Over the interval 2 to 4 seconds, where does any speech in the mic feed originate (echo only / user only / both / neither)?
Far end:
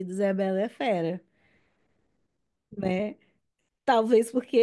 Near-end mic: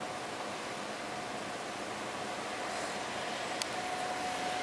neither